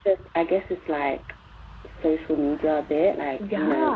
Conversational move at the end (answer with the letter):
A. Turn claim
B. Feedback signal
B